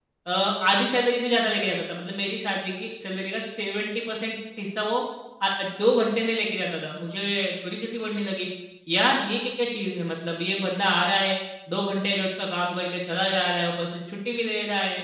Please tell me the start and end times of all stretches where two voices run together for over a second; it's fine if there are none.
none

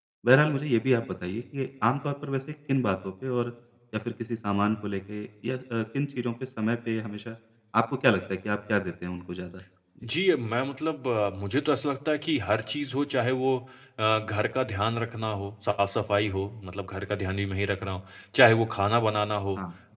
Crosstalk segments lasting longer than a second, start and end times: none

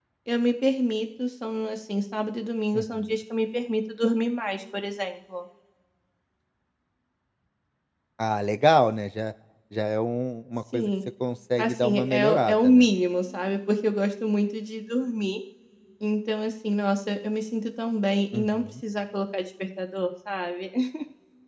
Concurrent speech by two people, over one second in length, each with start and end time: 11.6-12.9

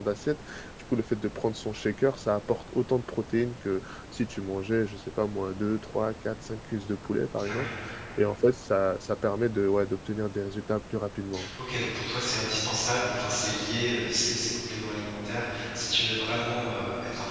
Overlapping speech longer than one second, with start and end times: none

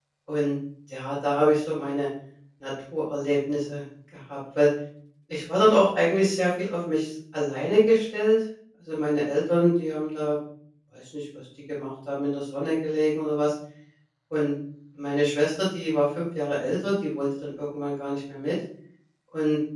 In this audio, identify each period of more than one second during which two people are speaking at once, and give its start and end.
none

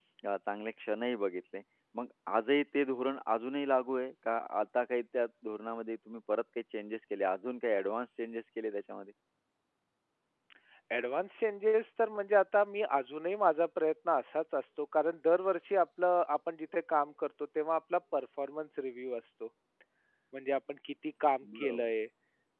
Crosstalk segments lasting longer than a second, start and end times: none

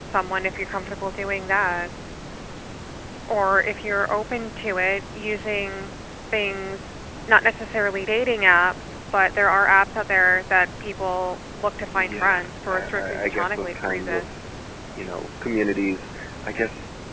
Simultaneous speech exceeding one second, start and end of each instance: 11.9-14.3

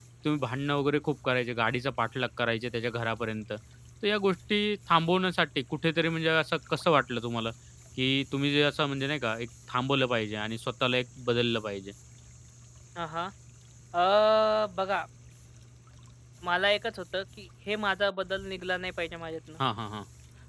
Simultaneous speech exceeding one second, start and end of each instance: none

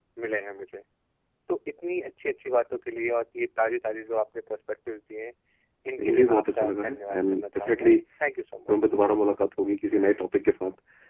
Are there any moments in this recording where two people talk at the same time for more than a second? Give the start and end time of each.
6.0-7.9

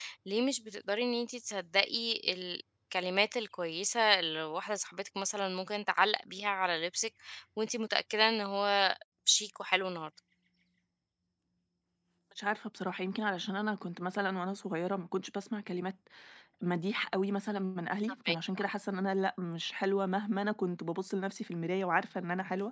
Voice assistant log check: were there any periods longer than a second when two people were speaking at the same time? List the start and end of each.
none

